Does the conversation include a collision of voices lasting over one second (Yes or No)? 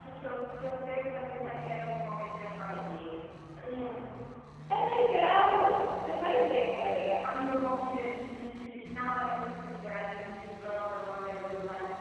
No